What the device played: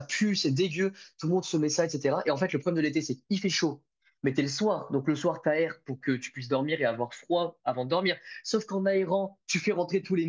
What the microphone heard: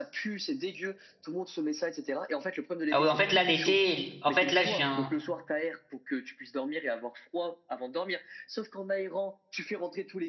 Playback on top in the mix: No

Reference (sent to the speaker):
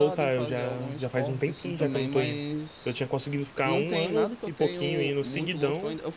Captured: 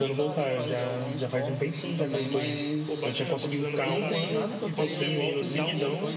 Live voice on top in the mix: No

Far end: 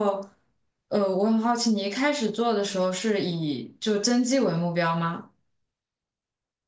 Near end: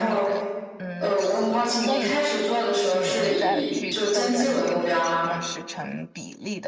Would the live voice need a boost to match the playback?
Yes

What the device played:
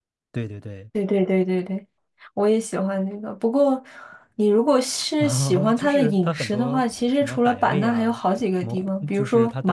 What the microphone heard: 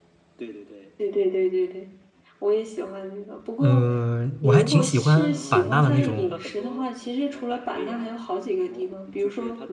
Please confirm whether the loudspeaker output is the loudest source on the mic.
No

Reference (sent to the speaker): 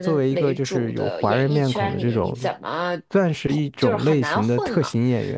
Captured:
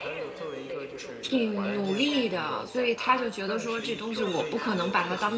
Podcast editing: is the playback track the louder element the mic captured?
No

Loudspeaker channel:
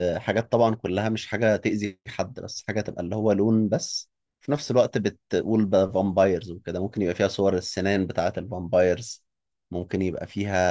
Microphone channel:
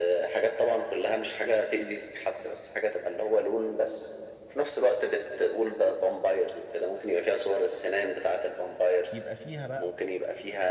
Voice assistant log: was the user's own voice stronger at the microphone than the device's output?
No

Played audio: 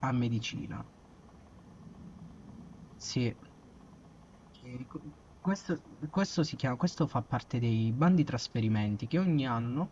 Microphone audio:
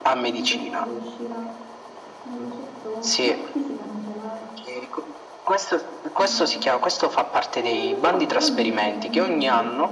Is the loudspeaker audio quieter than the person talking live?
No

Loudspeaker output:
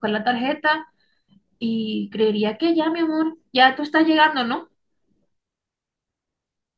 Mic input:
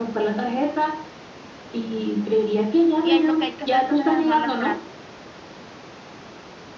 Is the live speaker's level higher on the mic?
No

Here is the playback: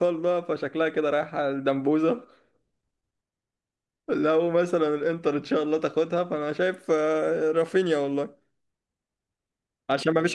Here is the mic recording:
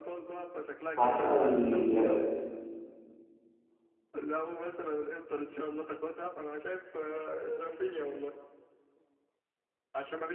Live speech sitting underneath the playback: No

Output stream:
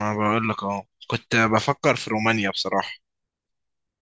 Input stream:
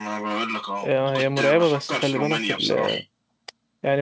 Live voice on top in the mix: Yes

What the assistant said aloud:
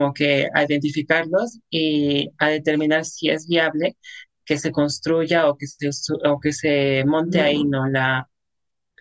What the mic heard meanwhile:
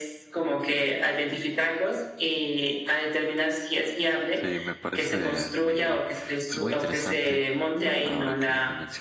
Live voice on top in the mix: No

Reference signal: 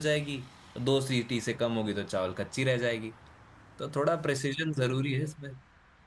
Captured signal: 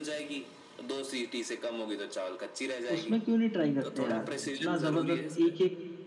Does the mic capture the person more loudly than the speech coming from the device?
Yes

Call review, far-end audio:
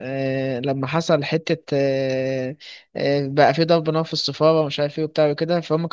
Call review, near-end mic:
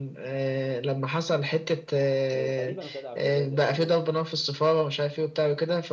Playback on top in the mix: Yes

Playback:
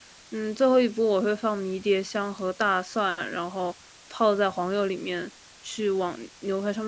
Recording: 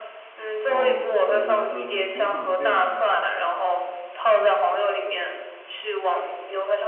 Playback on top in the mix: Yes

